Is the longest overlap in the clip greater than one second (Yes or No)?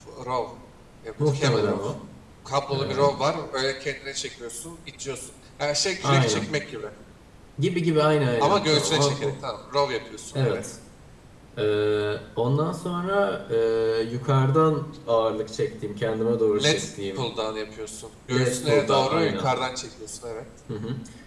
Yes